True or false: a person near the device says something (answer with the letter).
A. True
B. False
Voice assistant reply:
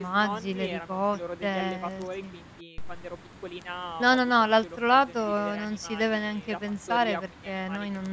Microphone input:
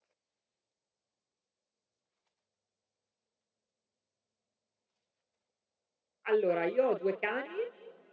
A